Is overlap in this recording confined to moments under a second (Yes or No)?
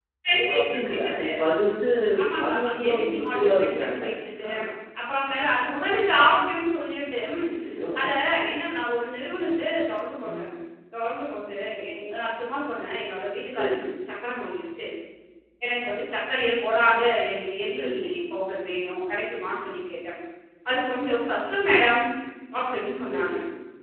No